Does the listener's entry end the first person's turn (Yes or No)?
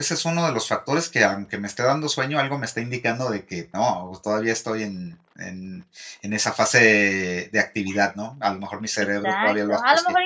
Yes